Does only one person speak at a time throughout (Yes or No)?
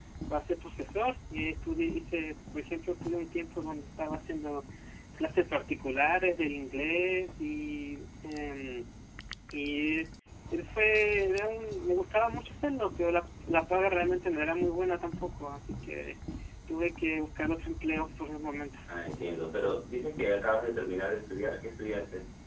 Yes